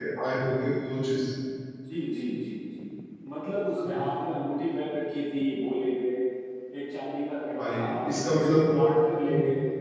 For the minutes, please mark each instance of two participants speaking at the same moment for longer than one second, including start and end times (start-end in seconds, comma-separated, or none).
7.6-8.9